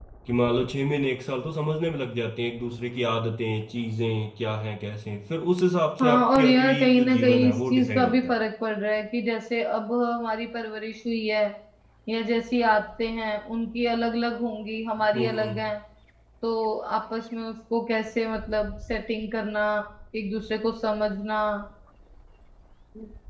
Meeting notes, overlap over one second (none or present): present